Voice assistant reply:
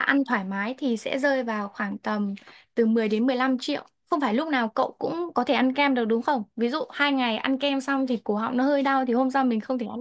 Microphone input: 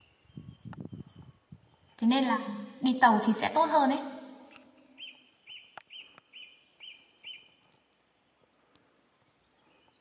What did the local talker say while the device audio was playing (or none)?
Thế nên là đi tàu thì sẽ tốt hơn ấy.